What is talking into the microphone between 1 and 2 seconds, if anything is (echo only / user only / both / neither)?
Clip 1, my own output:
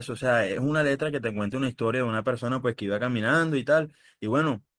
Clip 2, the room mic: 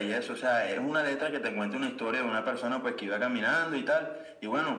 echo only